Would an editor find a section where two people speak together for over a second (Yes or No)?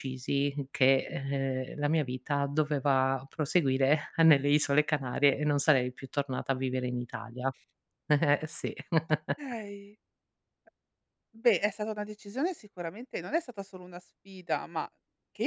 No